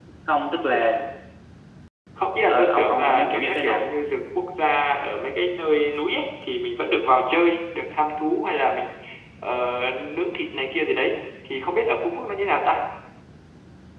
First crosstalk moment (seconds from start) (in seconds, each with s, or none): 2.5 s